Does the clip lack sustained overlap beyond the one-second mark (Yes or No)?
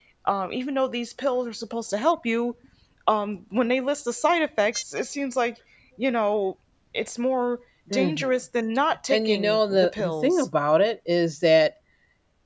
No